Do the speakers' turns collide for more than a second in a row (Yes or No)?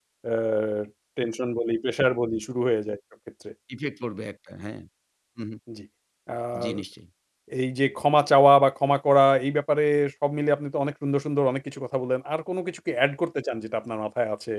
No